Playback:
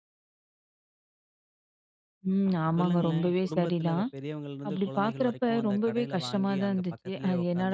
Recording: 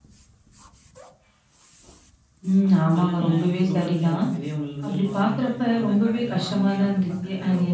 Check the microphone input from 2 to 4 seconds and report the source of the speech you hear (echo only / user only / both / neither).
echo only